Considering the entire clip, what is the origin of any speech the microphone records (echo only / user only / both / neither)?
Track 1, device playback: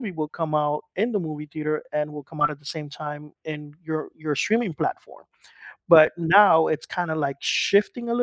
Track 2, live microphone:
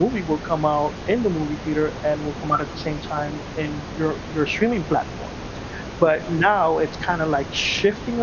echo only